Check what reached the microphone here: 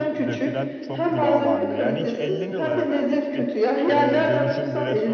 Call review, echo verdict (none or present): present